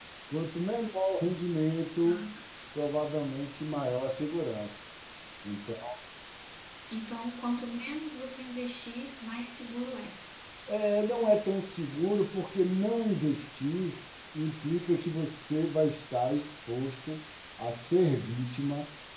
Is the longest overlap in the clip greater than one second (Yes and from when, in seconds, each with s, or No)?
No